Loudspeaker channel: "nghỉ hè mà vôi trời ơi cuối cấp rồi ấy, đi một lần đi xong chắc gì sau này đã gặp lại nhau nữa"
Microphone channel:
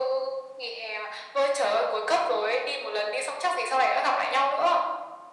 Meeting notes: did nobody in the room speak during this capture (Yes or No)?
Yes